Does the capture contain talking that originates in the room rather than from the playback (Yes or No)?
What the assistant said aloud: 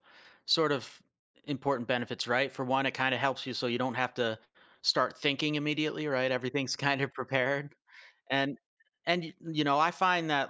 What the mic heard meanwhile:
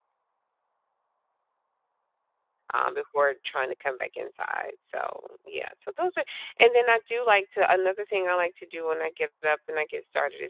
Yes